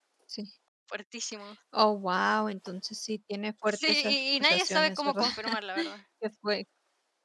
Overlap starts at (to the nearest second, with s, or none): 4 s